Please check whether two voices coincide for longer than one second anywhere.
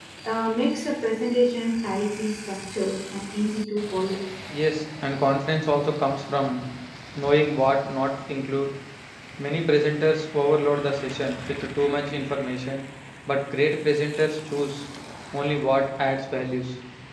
No

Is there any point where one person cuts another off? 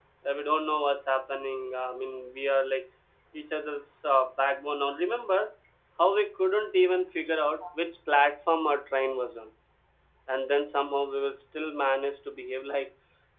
No

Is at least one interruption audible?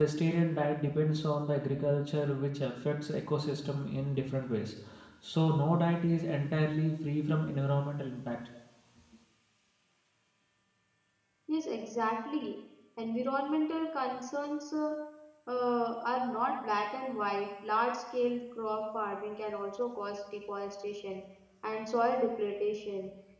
No

